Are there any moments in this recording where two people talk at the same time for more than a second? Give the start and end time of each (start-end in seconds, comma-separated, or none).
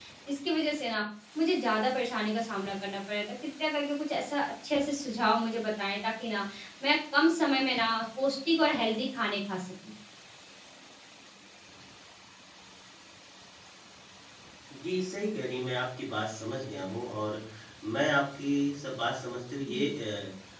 none